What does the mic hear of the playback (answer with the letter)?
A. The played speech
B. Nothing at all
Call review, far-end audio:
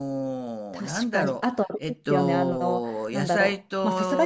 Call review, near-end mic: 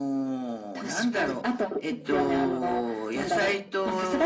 A